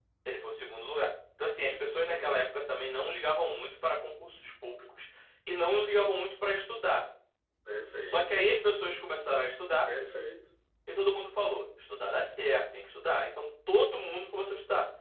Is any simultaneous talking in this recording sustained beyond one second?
No

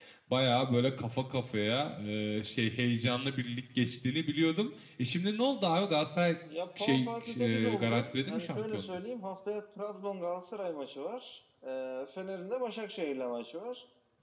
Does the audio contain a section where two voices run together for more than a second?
Yes, from 6.8 s

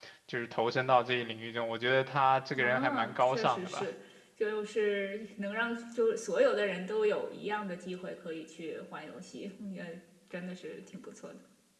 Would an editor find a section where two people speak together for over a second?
Yes, from 2.5 s

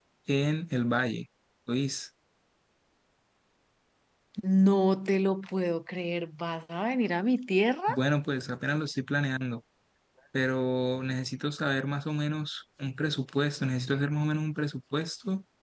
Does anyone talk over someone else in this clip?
No

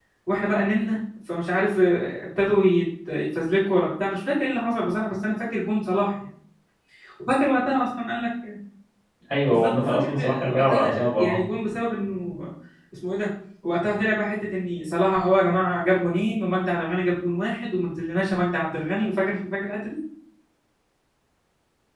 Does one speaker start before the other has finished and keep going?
Yes, from 9.5 s

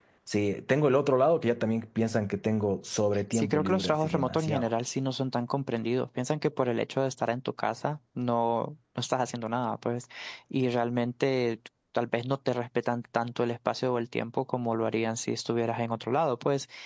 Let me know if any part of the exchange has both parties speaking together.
Yes, from 3.3 s

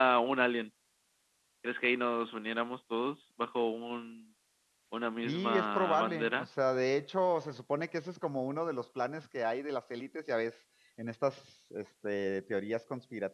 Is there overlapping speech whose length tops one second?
Yes, from 5.2 s

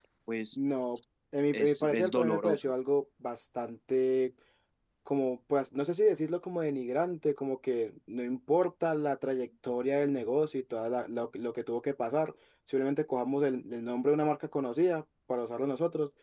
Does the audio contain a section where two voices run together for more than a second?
Yes, from 1.5 s

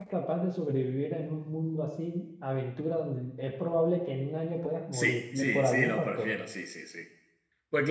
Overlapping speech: Yes, from 4.9 s

